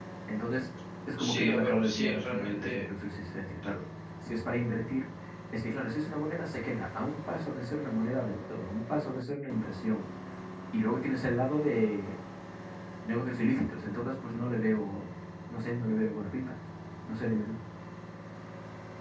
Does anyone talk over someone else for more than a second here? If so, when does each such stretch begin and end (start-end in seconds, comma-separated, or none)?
1.2-2.9